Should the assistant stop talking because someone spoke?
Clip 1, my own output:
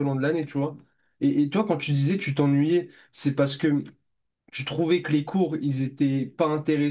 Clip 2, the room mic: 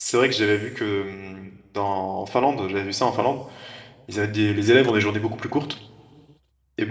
Yes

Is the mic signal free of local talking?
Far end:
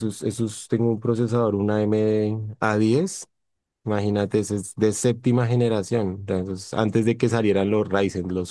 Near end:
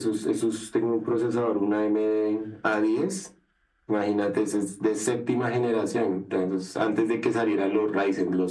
Yes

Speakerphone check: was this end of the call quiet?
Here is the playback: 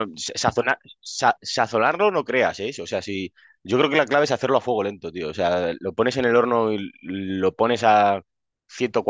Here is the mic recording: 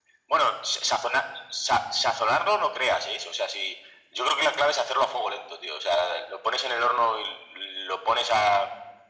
Yes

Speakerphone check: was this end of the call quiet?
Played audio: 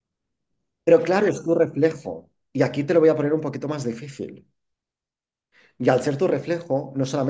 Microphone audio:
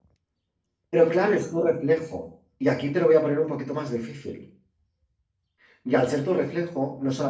Yes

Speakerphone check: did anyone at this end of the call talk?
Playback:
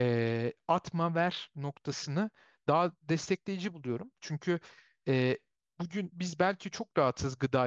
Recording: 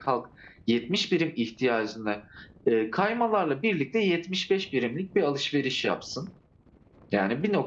Yes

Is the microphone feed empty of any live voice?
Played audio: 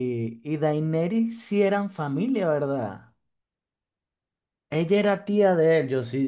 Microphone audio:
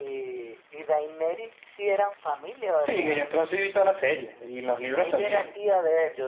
No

